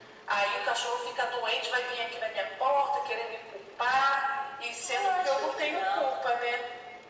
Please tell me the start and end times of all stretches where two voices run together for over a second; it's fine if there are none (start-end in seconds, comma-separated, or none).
4.9-6.1